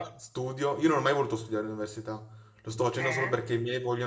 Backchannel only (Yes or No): Yes